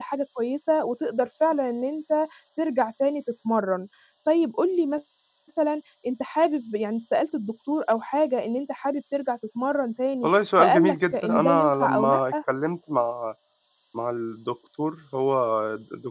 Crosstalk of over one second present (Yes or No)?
Yes